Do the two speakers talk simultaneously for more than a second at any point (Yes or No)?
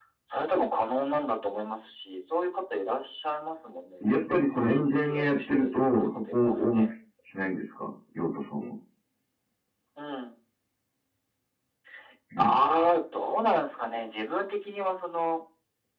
Yes